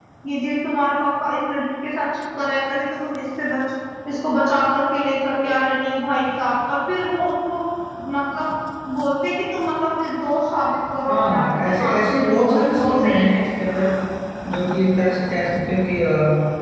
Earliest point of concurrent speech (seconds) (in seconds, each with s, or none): 11.0 s